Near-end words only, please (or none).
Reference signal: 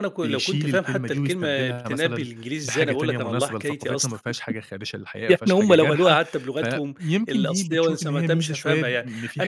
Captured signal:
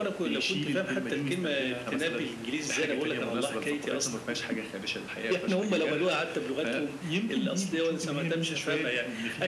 none